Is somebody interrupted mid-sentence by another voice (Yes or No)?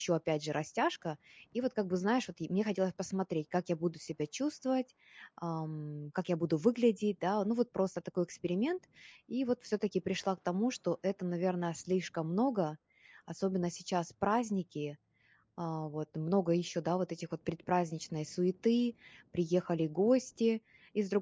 No